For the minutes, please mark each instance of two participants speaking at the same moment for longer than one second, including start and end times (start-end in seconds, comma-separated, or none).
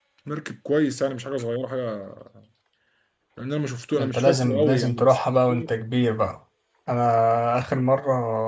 3.9-5.2